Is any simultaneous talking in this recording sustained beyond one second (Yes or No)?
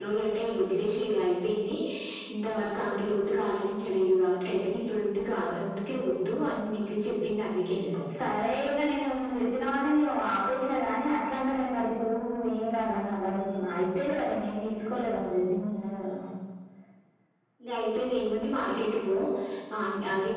No